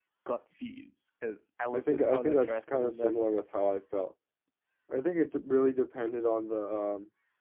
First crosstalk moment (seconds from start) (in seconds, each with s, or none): 1.7 s